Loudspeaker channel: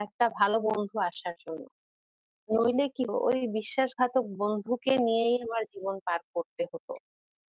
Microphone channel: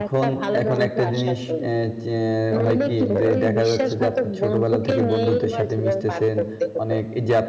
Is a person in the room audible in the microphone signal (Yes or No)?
Yes